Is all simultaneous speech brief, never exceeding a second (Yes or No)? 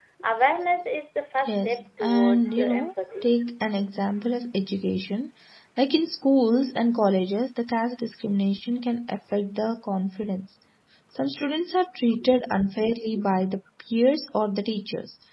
No